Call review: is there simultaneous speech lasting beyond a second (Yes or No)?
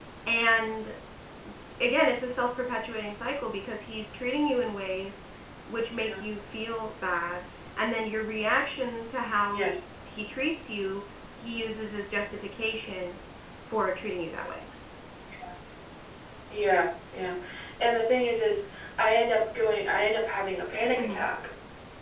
No